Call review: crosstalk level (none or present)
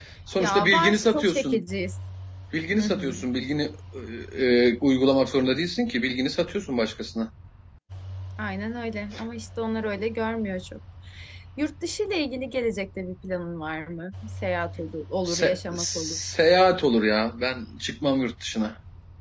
present